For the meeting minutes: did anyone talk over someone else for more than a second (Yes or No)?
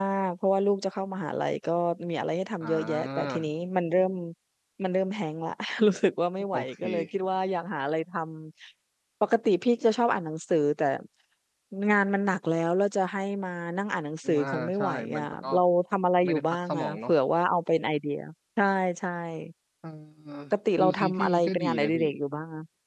Yes